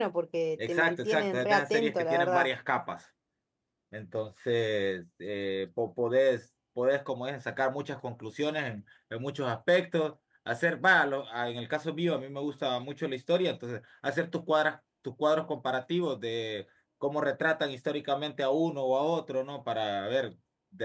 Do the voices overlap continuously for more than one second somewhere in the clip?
Yes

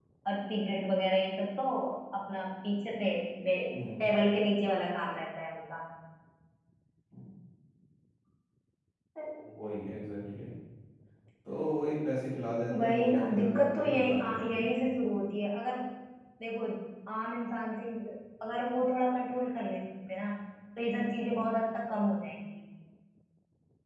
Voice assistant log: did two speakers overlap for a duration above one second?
Yes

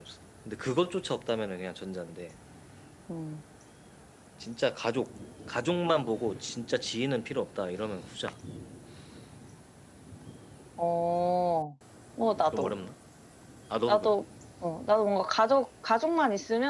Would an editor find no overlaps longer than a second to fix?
Yes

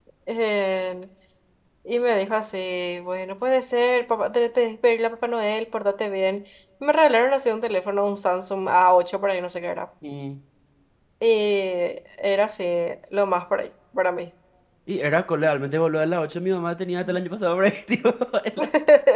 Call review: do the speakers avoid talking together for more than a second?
Yes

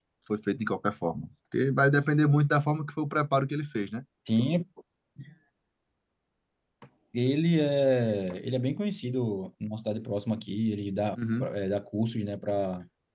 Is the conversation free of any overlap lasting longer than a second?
Yes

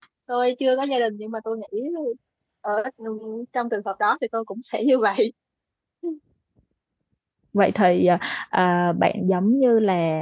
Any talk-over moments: No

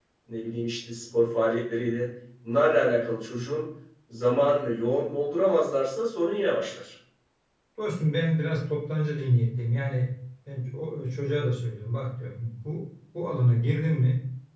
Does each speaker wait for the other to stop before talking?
Yes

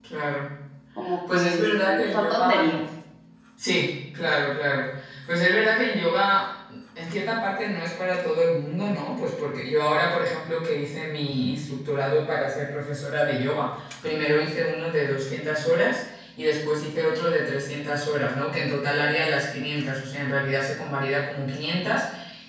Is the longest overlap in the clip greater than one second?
Yes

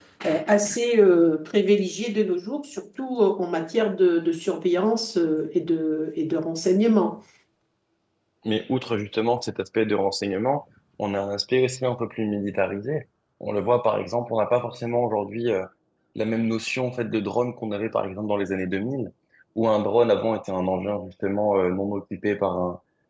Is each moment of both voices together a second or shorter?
Yes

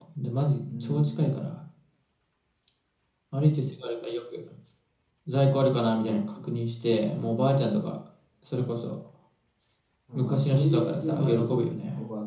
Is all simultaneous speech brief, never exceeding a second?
No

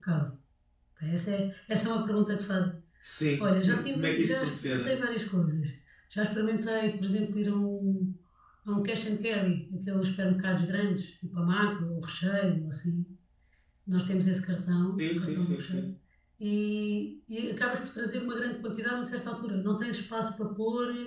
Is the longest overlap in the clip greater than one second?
Yes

